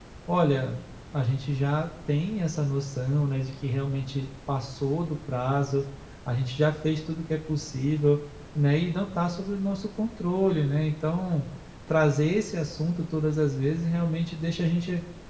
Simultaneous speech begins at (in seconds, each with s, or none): none